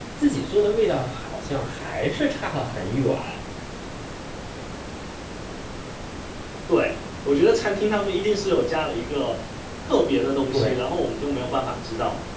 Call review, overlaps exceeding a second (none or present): none